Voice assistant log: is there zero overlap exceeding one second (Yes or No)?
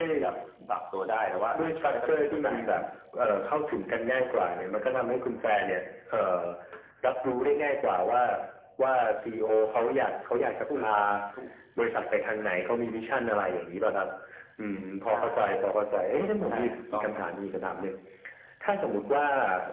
No